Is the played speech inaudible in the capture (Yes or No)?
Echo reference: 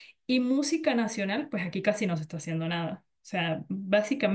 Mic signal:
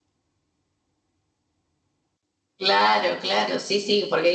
Yes